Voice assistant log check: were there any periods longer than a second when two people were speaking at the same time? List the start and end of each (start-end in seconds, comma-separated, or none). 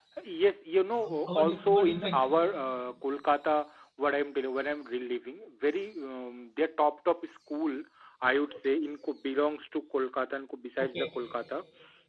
0.9-2.2